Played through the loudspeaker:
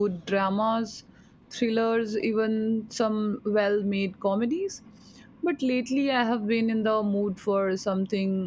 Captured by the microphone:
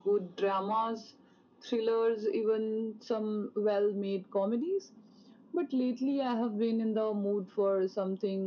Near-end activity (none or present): none